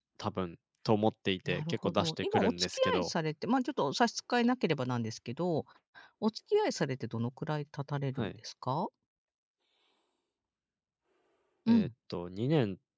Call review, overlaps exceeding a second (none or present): present